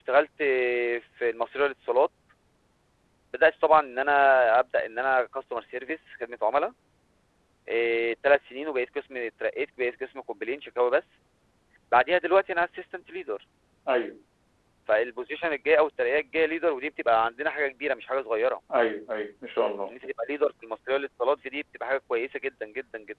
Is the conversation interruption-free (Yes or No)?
Yes